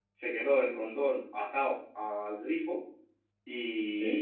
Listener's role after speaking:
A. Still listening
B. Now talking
A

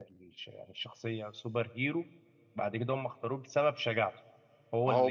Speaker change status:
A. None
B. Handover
A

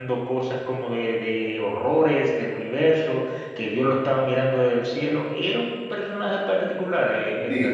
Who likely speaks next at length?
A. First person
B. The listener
B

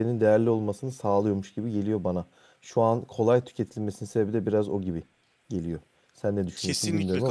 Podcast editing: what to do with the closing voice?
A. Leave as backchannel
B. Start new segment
B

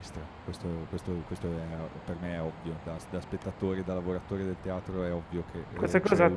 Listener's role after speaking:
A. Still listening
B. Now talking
B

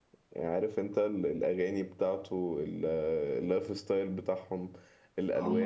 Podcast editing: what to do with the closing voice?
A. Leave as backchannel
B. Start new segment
B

